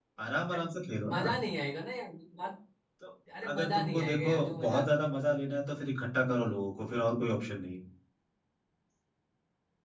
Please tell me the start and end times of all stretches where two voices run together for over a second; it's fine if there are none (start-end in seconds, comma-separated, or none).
3.5-4.8